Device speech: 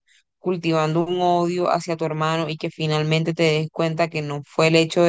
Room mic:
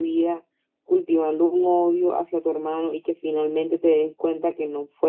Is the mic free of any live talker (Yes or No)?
Yes